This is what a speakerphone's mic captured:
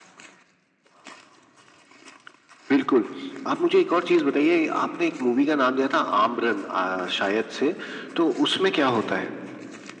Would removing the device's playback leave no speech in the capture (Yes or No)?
Yes